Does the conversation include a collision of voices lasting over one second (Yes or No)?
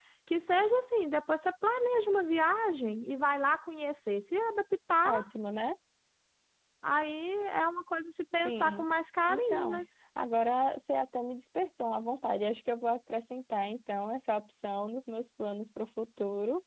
No